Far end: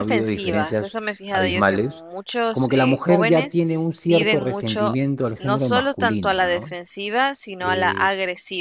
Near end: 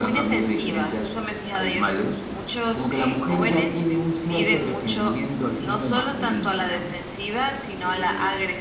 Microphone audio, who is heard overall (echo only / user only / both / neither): echo only